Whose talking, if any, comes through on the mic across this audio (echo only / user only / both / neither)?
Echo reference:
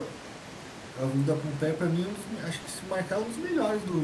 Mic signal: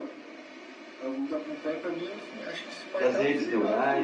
both